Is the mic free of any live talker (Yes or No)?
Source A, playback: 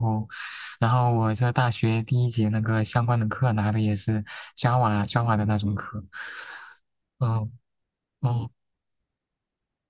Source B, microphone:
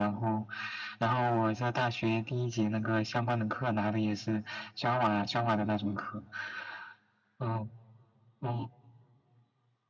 Yes